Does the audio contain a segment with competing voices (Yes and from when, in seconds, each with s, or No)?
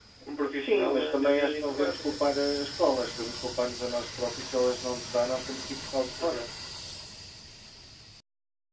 Yes, from 0.5 s